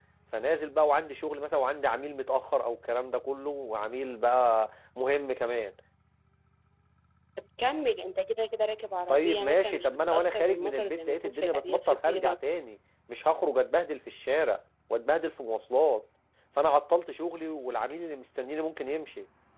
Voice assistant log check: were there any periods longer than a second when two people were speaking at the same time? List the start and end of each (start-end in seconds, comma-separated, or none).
9.1-12.4